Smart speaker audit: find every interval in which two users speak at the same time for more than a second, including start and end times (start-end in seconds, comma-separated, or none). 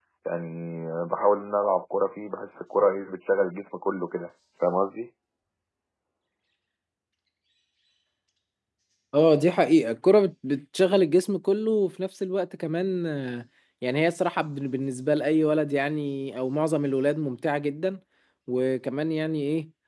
none